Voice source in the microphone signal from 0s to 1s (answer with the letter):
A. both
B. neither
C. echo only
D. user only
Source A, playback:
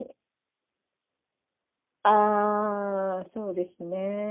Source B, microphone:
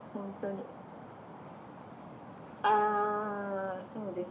C